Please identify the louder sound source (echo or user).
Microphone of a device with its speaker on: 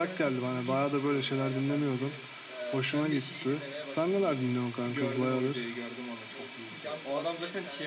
echo